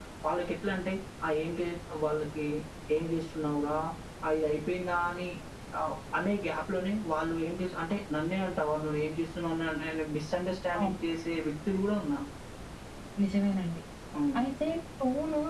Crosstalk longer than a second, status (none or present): none